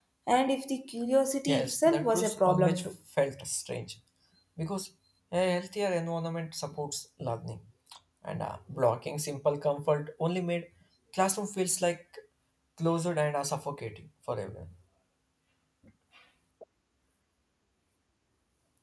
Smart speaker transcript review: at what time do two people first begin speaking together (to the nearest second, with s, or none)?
1 s